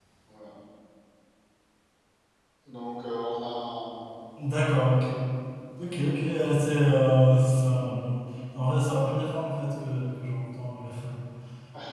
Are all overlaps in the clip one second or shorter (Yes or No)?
Yes